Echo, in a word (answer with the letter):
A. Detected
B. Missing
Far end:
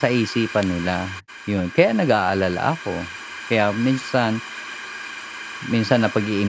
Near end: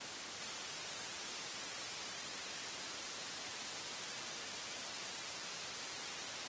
B